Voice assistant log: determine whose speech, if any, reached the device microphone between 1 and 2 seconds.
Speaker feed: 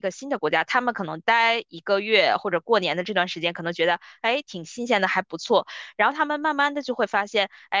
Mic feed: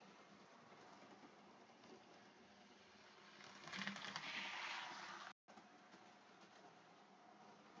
neither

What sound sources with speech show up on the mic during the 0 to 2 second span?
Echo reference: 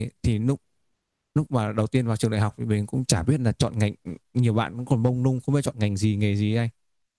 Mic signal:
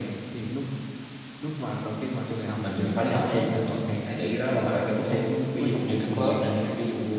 echo only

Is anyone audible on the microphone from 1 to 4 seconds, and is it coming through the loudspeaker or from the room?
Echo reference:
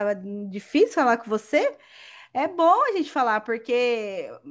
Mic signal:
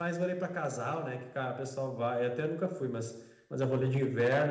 user only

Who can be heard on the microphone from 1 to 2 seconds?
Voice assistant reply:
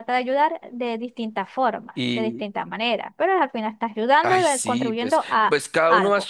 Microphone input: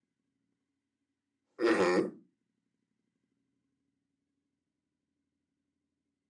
user only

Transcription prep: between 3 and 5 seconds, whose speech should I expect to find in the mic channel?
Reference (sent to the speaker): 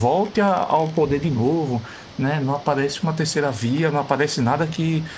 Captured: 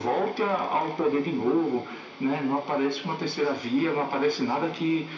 echo only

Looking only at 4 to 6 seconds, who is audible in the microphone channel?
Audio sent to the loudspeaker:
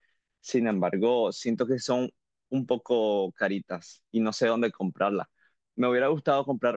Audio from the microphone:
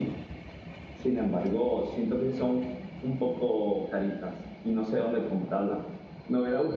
echo only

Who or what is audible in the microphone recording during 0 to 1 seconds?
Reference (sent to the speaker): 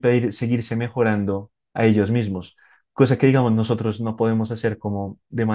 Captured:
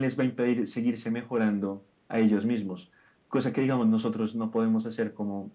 echo only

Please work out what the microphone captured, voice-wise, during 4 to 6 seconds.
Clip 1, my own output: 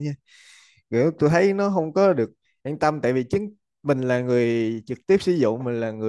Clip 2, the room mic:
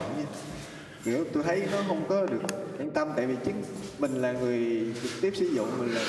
echo only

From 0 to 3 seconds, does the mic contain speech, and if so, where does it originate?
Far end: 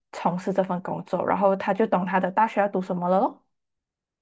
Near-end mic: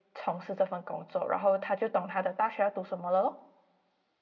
echo only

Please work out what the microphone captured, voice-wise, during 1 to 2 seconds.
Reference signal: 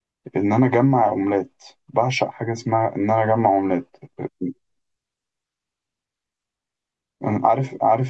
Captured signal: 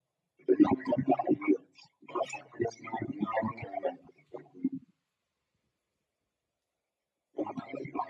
echo only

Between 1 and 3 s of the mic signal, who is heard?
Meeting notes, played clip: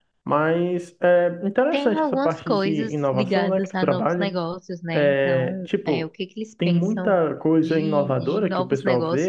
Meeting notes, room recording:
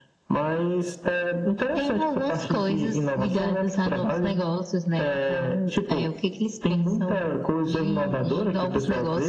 echo only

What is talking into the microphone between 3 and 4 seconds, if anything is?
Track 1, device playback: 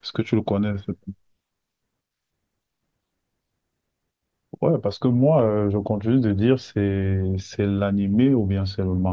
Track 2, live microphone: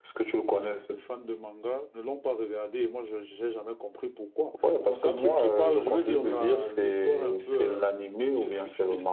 user only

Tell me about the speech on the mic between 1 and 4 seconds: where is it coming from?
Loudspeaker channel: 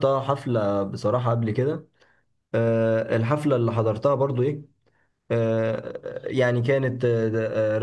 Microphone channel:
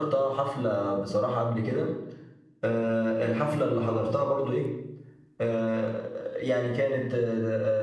echo only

